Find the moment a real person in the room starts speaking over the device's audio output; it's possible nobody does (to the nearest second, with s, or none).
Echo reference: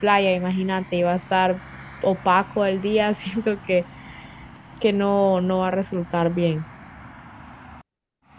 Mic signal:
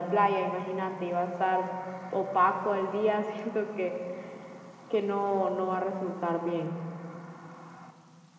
none